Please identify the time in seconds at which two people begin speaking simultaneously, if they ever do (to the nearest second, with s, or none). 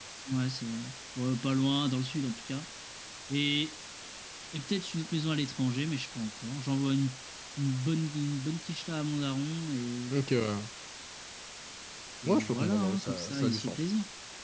12 s